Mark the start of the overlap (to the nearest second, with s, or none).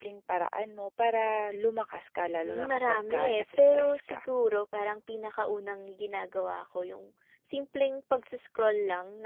2 s